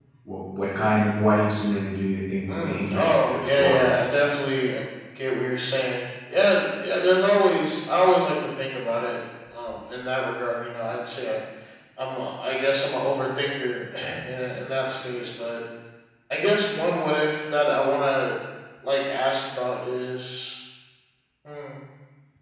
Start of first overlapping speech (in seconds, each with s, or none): 2.5 s